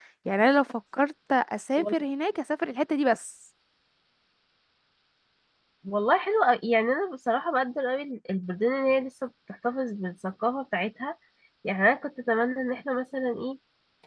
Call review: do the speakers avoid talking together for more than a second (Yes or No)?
Yes